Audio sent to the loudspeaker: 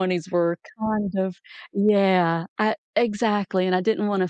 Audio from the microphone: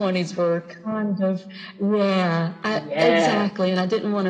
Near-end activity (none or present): present